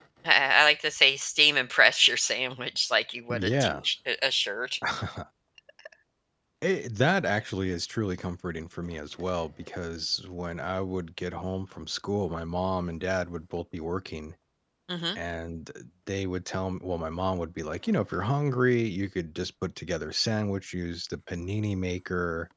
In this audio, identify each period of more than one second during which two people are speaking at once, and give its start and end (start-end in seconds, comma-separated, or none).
none